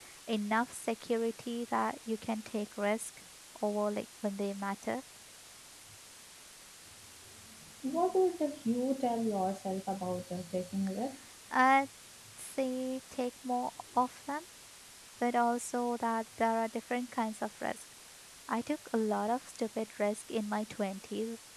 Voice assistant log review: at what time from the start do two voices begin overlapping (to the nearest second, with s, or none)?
none